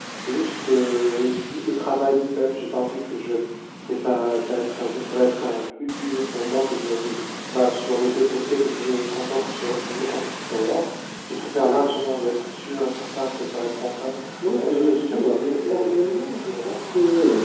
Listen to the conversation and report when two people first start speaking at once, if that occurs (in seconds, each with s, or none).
14.6 s